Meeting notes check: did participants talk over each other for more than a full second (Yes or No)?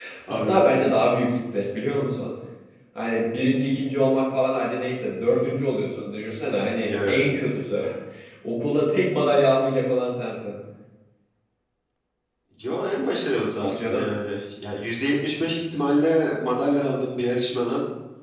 No